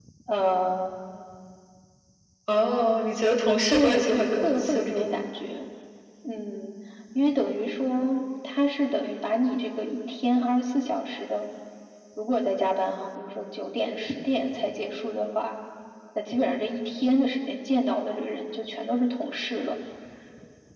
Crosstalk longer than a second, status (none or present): present